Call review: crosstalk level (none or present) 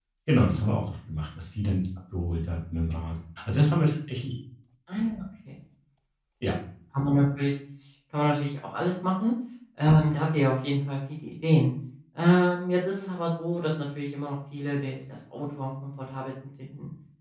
none